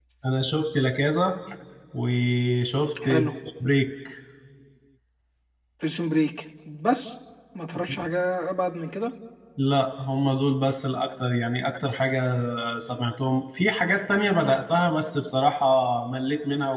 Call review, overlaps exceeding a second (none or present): none